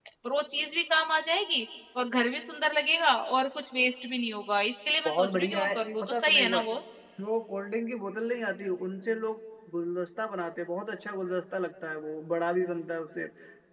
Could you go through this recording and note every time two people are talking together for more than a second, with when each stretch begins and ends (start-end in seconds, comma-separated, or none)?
5.0-6.6